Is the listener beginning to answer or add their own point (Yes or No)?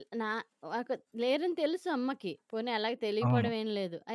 No